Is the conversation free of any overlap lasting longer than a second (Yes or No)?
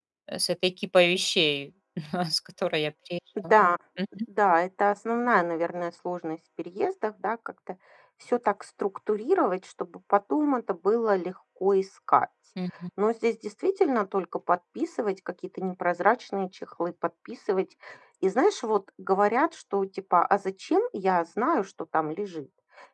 Yes